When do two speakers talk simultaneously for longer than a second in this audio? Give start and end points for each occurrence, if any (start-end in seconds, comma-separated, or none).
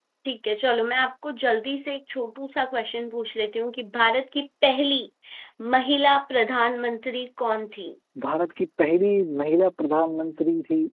none